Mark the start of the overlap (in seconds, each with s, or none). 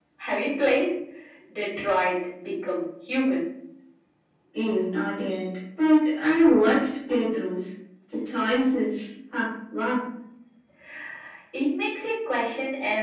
none